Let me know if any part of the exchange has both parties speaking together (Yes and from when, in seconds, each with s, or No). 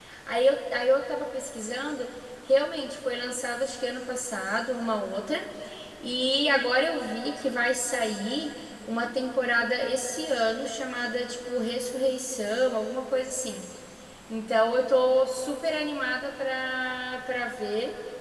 No